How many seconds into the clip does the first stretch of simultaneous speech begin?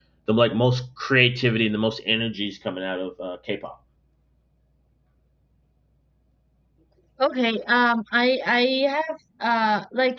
none

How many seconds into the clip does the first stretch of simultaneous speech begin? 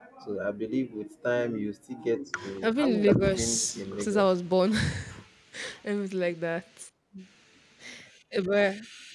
2.6 s

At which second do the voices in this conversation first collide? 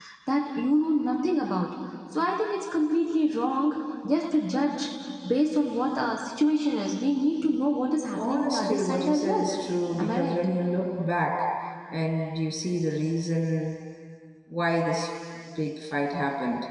8.1 s

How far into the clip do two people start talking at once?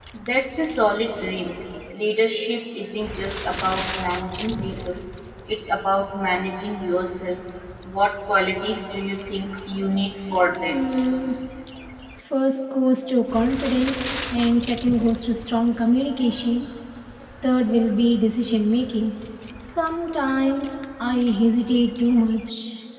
none

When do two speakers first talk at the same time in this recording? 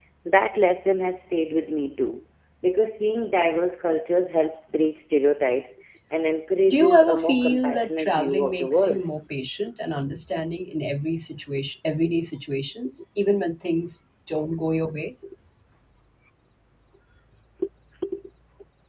6.7 s

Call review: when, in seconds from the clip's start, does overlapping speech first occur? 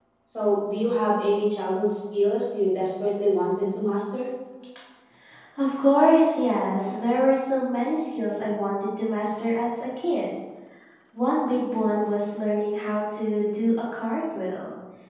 none

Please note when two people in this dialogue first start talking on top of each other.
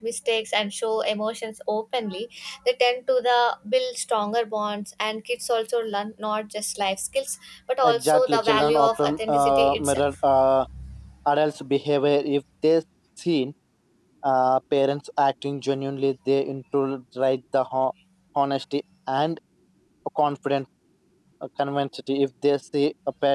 7.8 s

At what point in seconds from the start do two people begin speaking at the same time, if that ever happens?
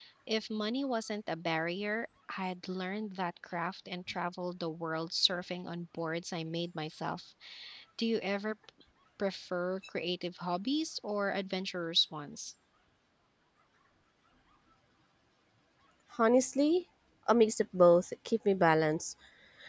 none

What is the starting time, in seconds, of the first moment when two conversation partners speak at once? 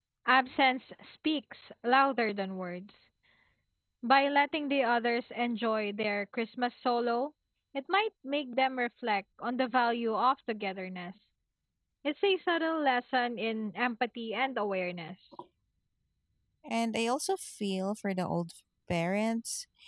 none

